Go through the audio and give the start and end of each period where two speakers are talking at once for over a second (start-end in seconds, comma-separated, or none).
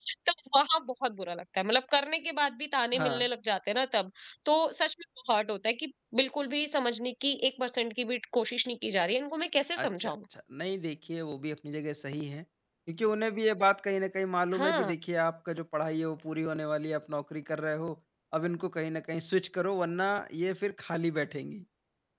none